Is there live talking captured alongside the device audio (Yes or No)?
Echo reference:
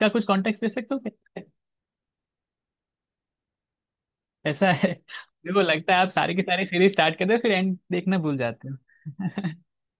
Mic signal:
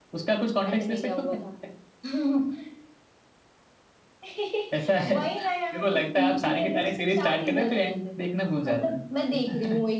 Yes